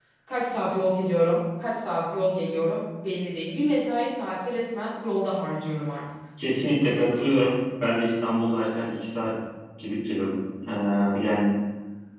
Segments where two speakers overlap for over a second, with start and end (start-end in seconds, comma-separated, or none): none